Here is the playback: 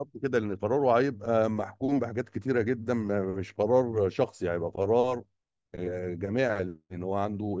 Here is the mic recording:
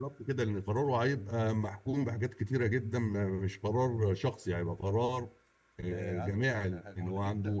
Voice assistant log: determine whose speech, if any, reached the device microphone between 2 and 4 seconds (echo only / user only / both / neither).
echo only